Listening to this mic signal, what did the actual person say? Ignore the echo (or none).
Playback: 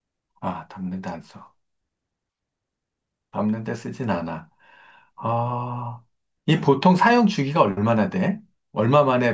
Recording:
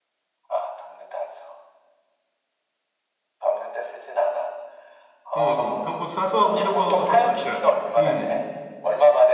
응. 평범 사소하고 평범한 것들이 많으니까. 응.